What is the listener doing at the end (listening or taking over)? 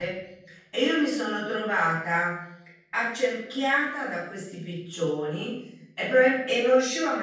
listening